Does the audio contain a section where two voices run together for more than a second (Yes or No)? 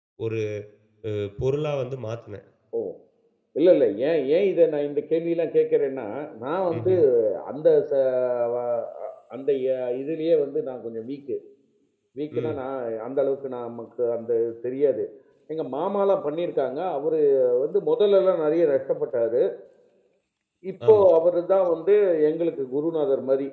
No